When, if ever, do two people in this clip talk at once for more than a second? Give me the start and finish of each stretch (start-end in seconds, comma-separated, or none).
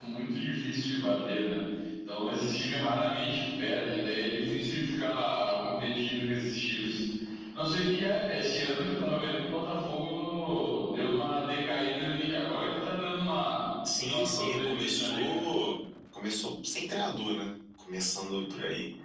14.1-15.4